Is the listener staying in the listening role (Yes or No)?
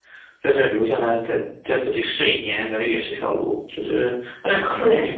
Yes